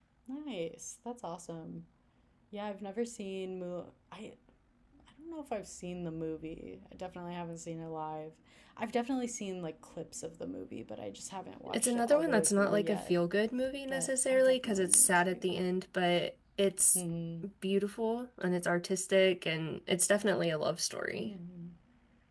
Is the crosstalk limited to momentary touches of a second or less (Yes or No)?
No